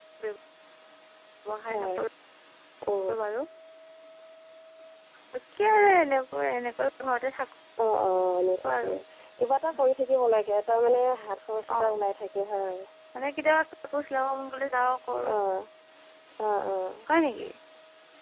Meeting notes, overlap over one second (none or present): none